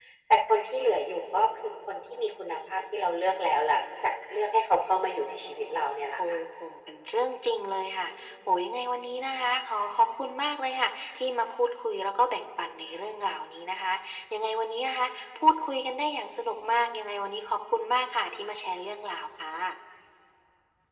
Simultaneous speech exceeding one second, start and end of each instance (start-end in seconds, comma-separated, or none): none